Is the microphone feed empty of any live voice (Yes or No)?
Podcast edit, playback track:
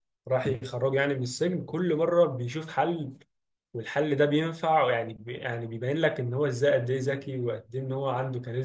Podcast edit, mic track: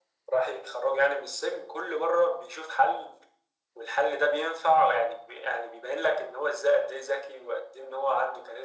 Yes